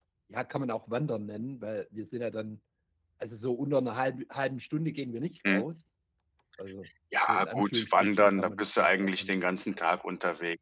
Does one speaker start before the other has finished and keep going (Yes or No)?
Yes